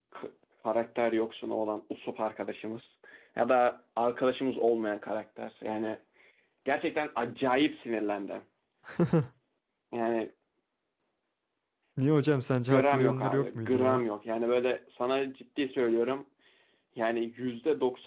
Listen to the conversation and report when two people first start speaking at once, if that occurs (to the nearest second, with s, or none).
13 s